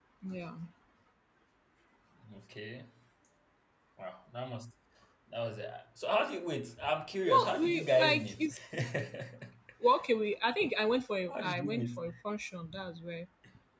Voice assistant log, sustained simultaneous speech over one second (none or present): present